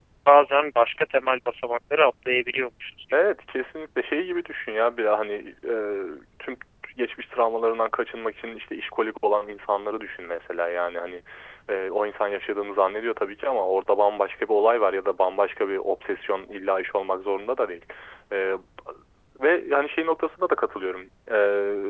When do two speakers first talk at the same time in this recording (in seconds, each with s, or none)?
none